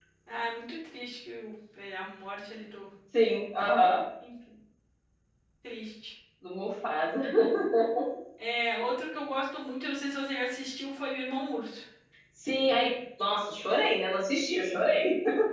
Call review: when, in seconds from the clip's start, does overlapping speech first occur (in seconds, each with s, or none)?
none